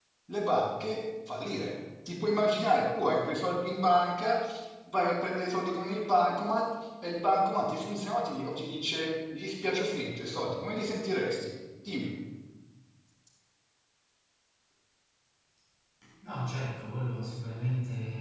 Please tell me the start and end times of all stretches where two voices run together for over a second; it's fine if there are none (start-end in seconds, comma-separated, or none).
none